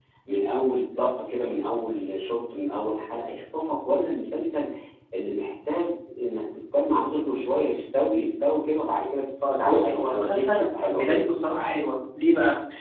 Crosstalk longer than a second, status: present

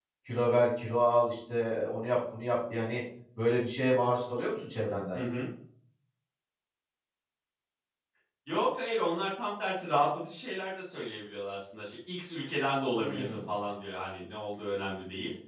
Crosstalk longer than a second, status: none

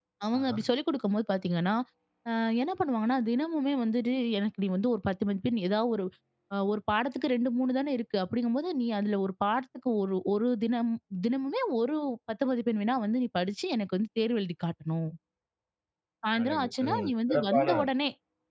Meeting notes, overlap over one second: present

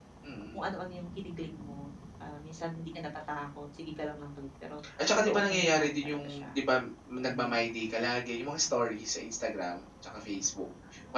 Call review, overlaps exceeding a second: present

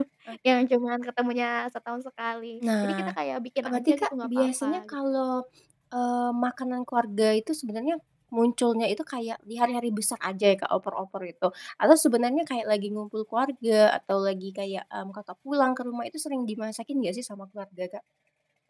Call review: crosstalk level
present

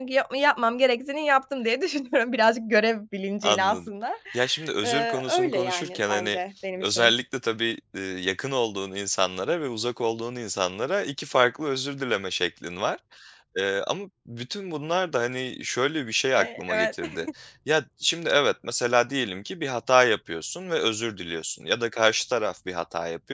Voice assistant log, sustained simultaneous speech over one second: present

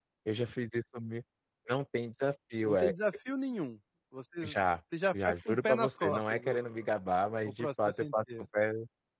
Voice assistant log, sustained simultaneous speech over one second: present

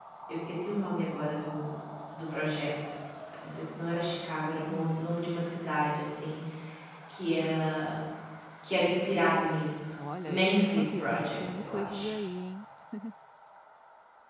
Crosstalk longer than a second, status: present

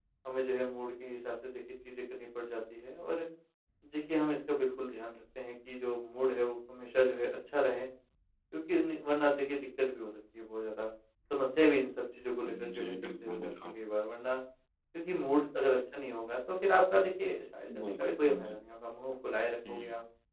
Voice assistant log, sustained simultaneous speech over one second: present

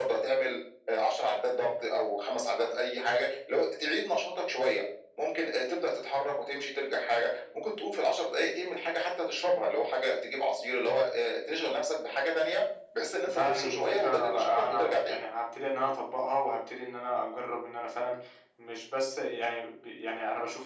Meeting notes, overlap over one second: present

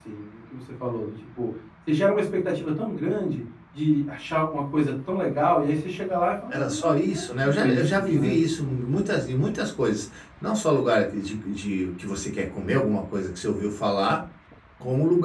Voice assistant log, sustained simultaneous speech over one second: present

